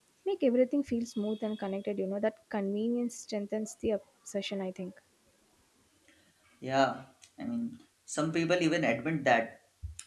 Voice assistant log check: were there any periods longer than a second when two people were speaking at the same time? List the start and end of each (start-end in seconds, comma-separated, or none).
none